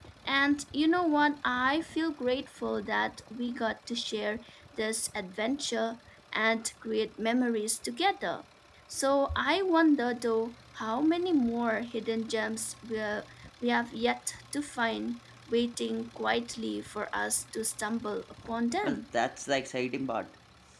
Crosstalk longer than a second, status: none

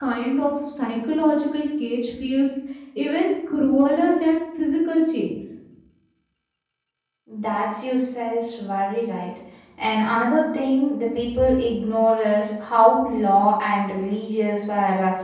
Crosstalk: none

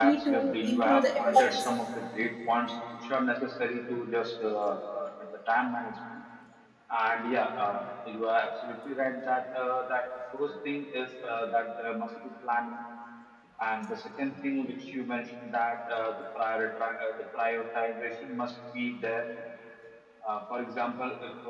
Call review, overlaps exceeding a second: present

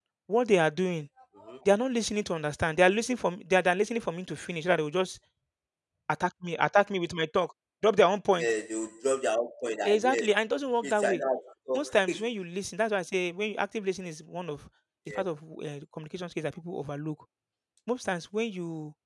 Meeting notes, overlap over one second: none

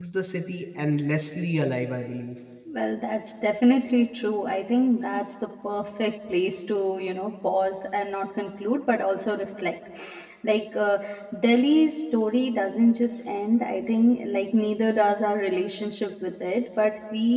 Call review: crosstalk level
none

